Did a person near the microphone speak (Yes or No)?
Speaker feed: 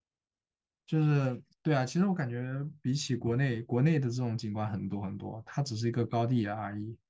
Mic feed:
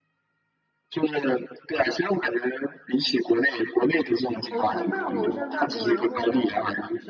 Yes